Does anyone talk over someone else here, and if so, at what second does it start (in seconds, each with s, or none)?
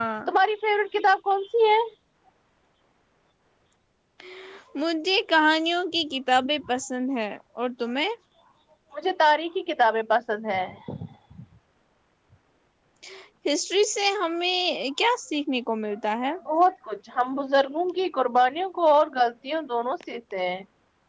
none